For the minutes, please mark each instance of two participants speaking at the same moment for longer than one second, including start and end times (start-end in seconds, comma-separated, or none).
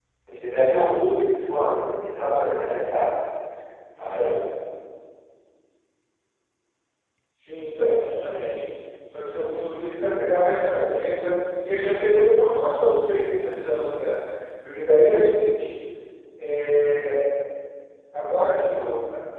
none